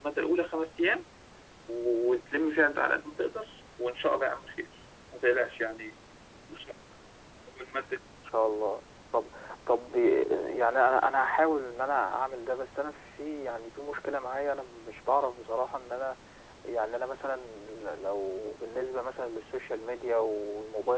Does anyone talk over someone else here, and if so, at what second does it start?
none

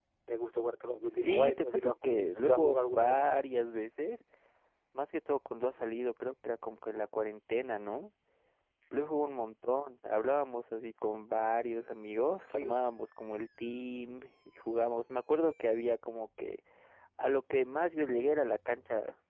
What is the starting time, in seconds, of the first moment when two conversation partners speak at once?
1.2 s

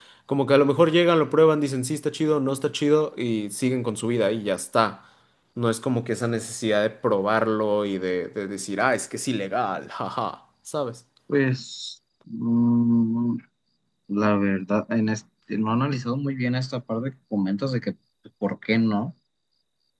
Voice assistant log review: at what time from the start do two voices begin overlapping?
none

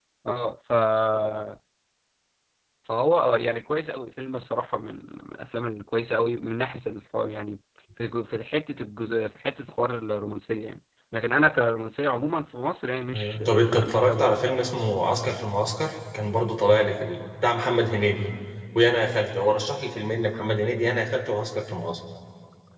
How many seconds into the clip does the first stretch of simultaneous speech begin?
13.1 s

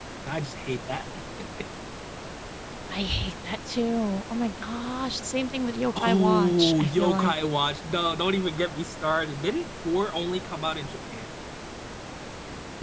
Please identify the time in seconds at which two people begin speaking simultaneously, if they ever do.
6.0 s

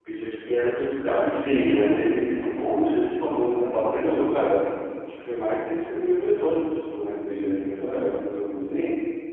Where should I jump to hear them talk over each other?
1.2 s

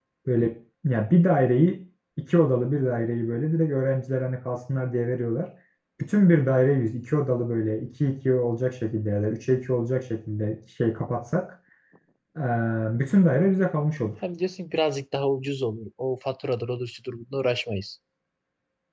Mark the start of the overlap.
none

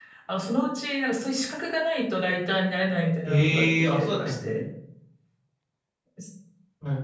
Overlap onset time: 3.2 s

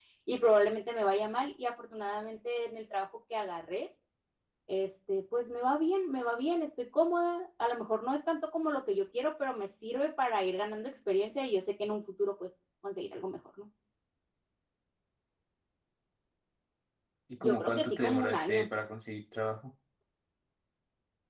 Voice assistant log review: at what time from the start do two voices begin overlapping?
17.4 s

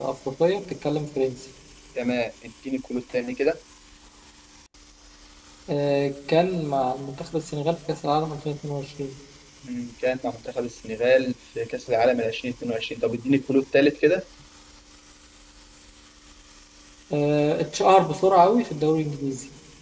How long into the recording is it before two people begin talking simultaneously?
none

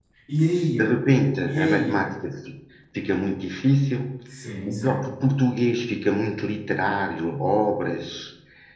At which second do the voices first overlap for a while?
0.7 s

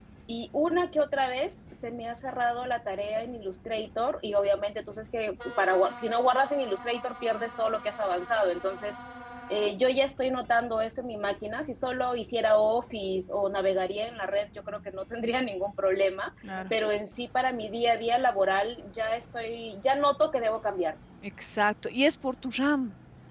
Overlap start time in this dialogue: none

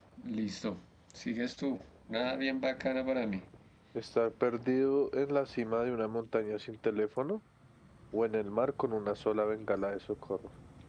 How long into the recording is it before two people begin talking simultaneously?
none

